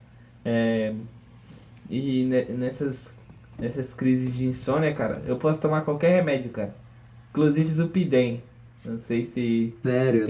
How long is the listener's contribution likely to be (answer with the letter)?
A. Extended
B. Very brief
A